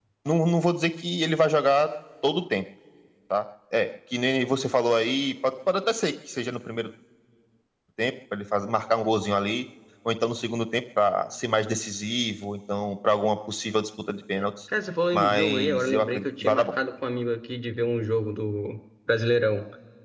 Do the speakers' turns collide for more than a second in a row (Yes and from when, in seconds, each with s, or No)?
Yes, from 15.1 s